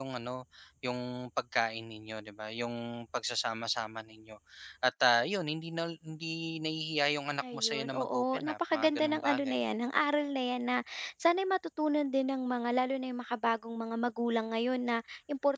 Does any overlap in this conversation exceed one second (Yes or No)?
Yes